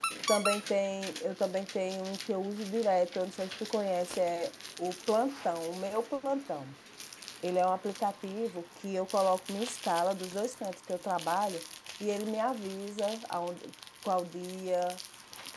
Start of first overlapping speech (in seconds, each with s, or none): none